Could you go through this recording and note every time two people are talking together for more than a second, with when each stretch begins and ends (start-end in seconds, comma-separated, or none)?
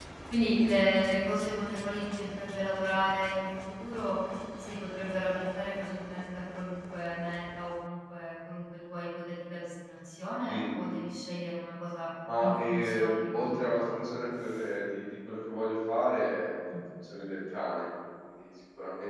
12.4-14.0